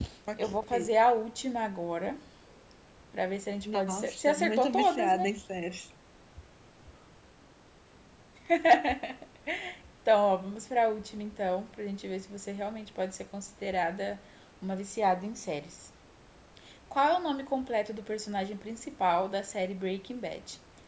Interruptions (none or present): present